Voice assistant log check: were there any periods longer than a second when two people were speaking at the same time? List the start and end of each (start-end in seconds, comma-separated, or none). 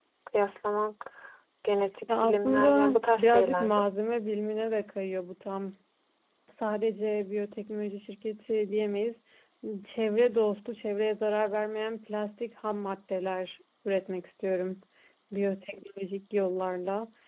2.2-3.8